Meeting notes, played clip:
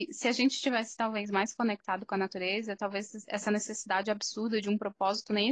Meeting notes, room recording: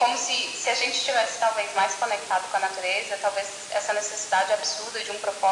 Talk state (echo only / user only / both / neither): echo only